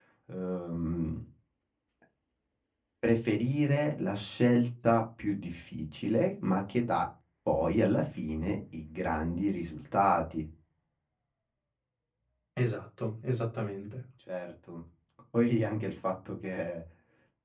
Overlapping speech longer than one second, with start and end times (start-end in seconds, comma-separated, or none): none